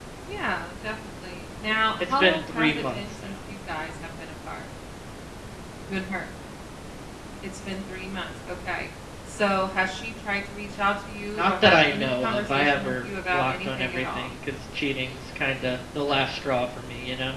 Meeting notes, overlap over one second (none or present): present